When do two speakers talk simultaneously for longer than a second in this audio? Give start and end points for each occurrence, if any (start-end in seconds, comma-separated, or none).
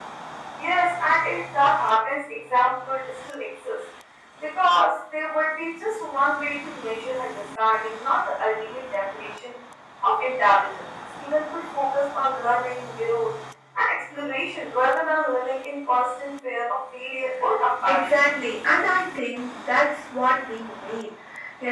none